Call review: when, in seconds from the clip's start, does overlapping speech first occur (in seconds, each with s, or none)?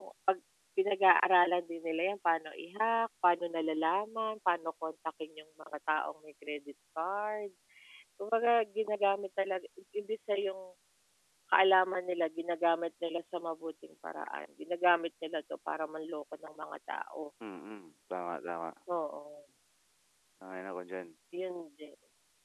none